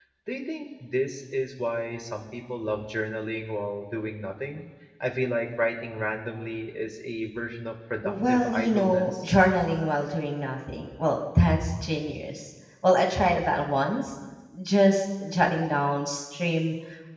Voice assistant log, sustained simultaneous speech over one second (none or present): present